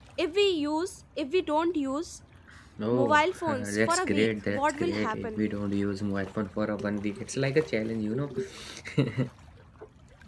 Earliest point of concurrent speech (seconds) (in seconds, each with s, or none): 2.9 s